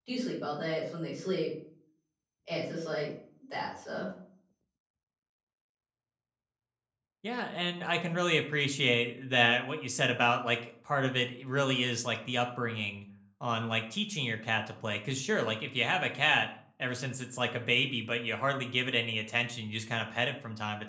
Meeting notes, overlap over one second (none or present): none